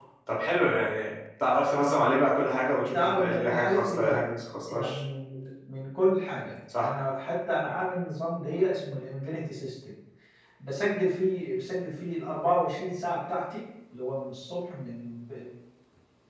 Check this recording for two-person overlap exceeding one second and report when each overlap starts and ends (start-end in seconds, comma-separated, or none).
2.9-4.2